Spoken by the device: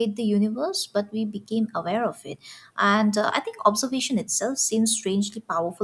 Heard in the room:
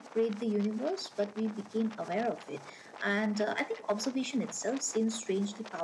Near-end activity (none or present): none